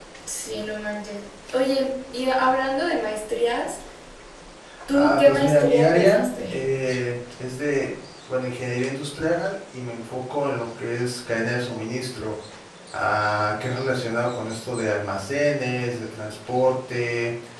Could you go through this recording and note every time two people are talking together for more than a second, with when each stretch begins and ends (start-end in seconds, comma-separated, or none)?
4.9-6.6